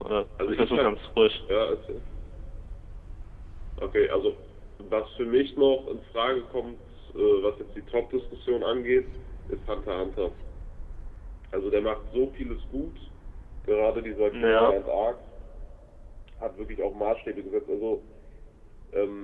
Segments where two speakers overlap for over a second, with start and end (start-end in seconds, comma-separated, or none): none